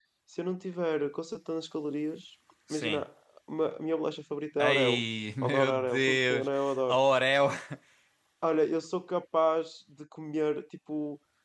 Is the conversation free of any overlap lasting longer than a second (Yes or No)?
No